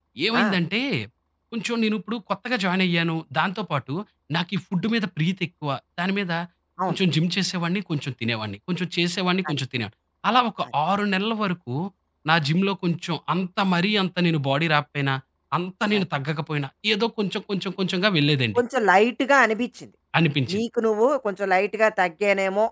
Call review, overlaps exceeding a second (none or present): none